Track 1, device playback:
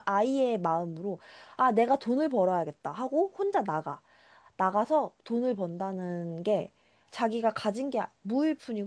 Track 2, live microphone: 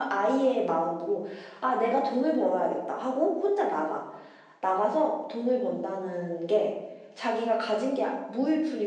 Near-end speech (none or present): none